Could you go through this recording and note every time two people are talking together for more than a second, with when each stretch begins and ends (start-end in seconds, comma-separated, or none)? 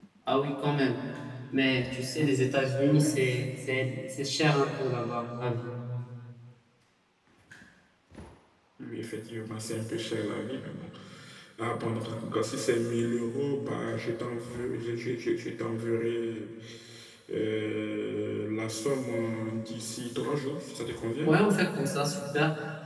none